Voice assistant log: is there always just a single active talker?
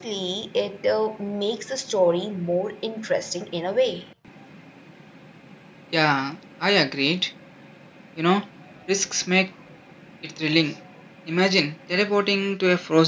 Yes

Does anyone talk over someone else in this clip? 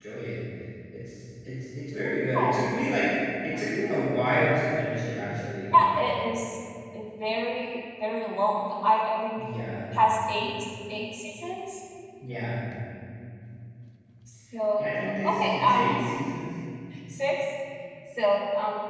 Yes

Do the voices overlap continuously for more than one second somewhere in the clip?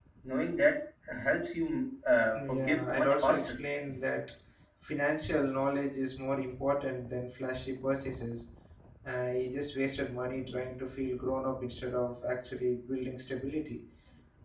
Yes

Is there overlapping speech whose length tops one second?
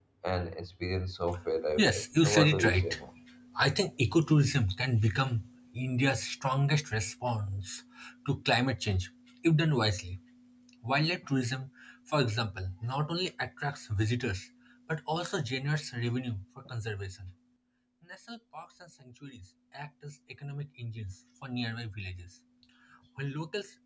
Yes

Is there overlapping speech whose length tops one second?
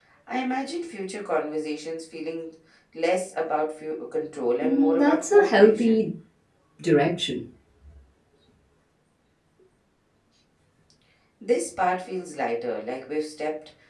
Yes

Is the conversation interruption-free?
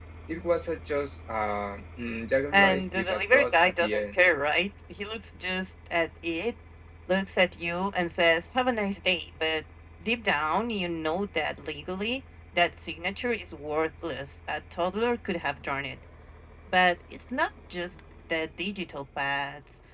No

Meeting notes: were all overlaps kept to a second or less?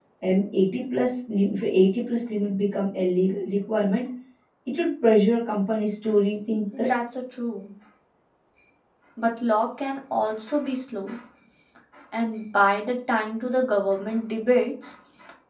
Yes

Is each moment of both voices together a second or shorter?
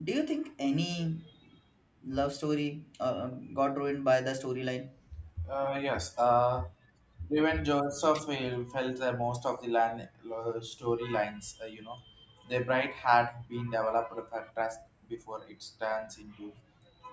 Yes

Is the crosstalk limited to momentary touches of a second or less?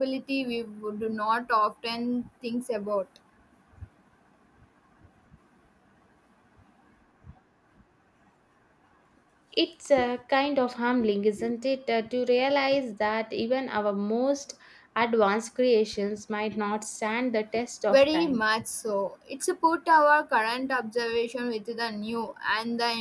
Yes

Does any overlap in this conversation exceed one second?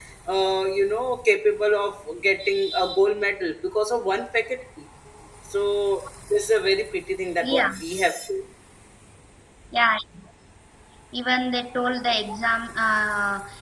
No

